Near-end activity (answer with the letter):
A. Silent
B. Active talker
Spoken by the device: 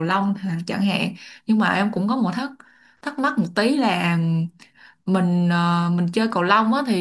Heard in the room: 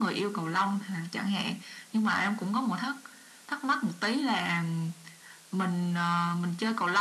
A